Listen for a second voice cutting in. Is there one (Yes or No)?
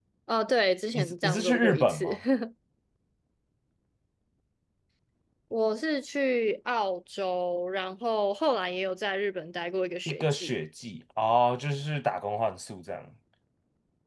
Yes